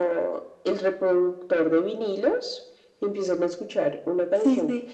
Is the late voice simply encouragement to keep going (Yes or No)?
Yes